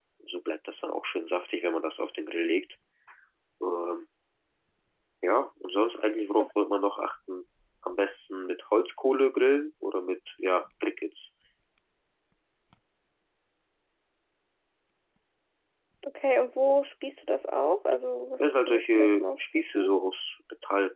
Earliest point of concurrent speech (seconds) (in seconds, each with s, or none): 18.4 s